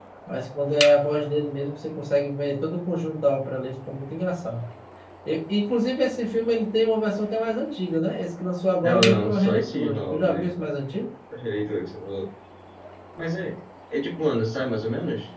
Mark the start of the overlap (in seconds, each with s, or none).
8.8 s